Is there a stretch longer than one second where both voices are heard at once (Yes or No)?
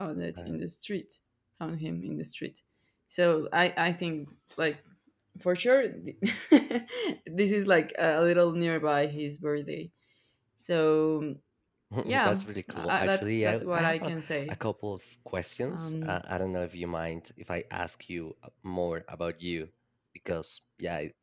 Yes